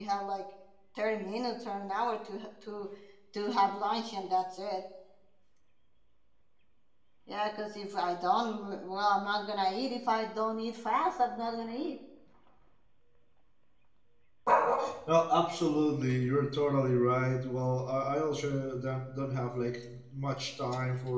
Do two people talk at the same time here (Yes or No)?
No